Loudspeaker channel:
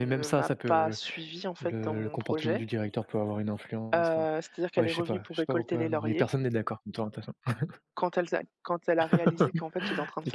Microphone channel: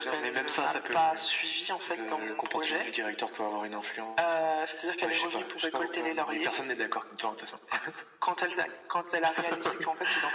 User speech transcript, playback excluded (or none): none